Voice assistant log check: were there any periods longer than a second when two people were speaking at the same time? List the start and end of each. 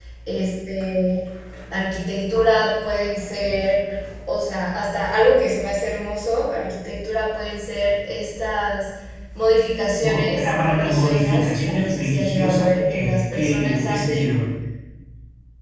10.1-14.4

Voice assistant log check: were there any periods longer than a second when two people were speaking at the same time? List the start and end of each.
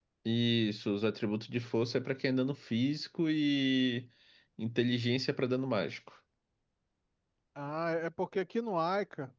none

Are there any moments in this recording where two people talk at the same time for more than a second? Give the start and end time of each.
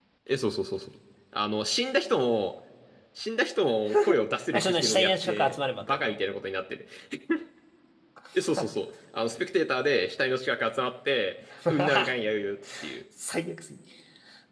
4.5-6.1

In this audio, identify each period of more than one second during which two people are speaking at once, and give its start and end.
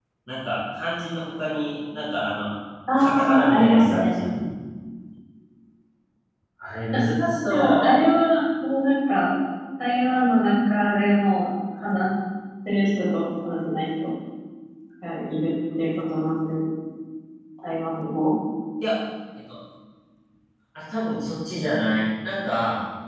3.0-4.2

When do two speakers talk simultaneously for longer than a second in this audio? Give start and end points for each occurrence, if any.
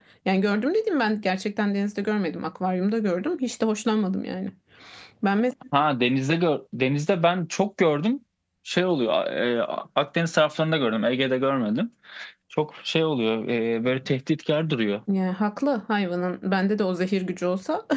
none

